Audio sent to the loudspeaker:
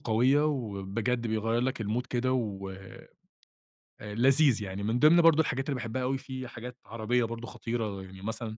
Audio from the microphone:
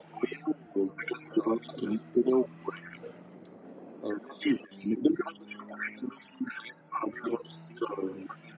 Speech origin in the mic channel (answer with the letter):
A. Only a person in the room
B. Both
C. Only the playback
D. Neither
C